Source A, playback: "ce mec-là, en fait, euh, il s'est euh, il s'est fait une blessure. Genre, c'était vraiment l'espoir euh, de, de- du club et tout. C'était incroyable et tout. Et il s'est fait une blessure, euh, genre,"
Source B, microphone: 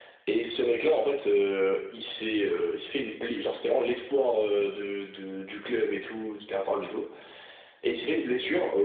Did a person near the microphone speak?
No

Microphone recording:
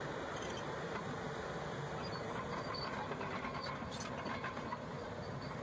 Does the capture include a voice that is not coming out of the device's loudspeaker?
No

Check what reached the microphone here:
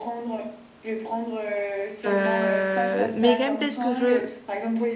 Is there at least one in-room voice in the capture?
Yes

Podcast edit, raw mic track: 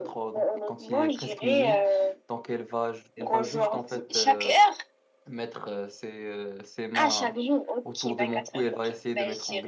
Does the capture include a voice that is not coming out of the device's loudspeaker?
Yes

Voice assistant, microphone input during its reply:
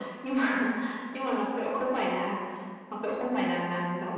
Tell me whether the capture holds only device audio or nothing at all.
Yes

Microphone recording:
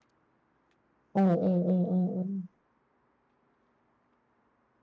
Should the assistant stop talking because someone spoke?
Yes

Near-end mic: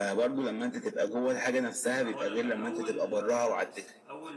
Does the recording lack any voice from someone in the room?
No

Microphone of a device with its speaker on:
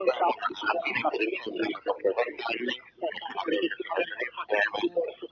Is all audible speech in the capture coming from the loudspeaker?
Yes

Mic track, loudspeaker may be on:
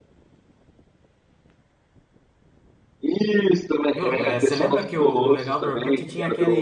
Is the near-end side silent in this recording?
No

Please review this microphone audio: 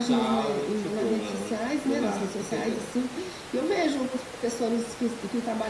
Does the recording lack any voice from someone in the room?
Yes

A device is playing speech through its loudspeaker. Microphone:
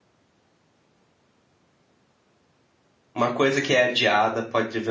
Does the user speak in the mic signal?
Yes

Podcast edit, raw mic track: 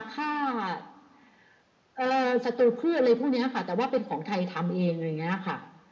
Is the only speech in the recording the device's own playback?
Yes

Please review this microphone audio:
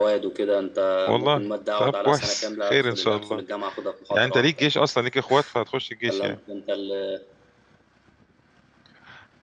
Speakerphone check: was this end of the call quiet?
No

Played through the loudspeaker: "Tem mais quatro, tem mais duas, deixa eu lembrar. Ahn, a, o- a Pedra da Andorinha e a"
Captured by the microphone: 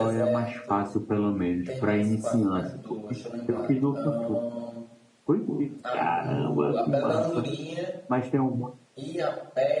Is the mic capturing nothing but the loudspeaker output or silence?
No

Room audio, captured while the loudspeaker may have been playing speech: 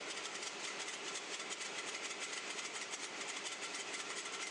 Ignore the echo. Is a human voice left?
No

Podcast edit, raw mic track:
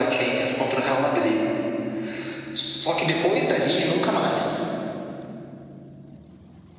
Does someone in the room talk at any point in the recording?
No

